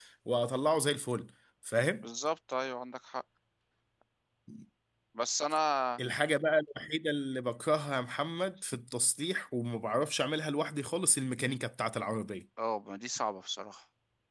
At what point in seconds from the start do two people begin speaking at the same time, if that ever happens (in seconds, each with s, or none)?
none